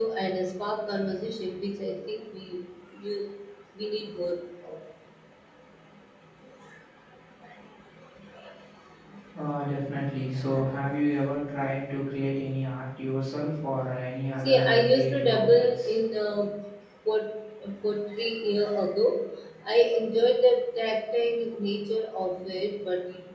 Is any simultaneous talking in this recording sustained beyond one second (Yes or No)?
Yes